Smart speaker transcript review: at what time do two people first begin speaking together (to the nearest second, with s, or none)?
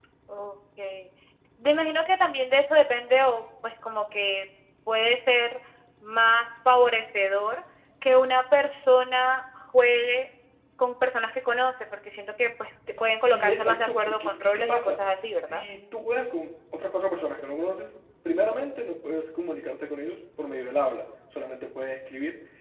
13 s